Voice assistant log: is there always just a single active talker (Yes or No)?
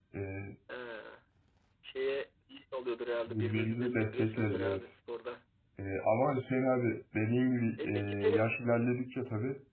No